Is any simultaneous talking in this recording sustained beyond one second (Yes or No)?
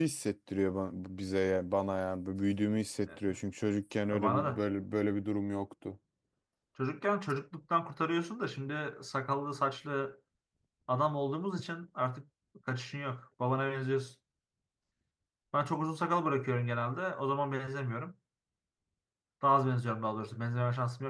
No